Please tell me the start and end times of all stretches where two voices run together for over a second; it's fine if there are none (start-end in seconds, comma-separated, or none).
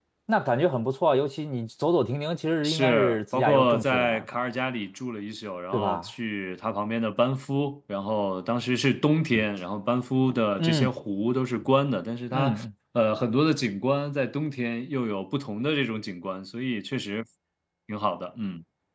2.6-4.4